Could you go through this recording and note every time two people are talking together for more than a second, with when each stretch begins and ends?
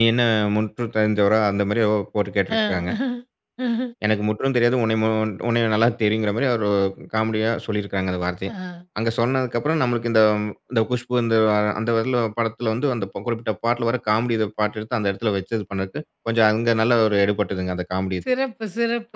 none

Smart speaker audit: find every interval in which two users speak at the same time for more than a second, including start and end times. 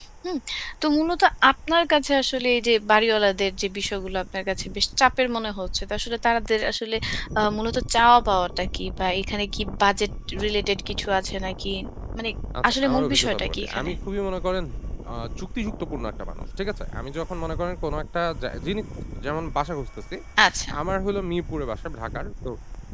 12.7-13.9

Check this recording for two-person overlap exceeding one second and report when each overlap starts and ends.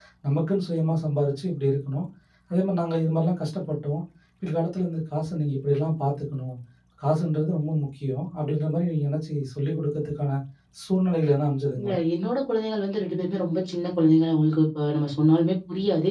none

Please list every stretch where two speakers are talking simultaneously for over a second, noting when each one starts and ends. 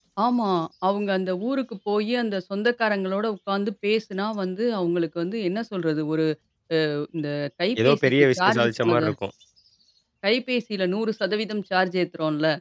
7.8-9.1

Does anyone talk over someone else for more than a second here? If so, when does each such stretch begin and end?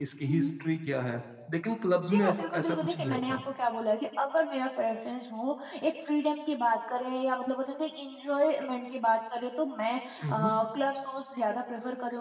2.1-3.4

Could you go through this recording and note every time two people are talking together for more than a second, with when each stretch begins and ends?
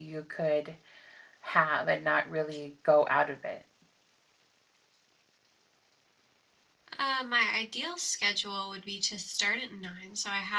none

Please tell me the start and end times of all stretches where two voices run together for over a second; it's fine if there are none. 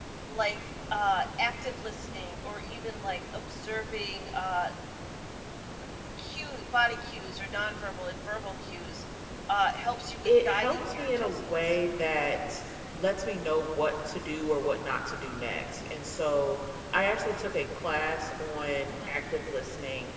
10.2-11.8

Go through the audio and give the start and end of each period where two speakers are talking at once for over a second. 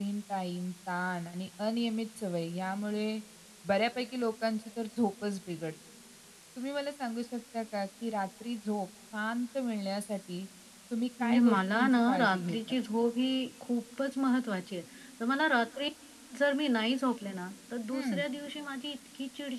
11.2-12.6

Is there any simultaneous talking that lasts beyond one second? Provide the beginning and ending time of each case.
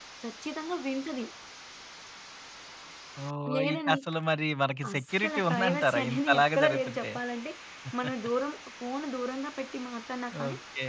4.9-7.1

